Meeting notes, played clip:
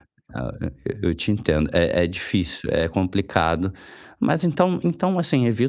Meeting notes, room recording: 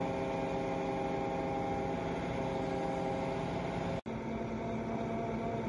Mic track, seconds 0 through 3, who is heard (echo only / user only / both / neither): neither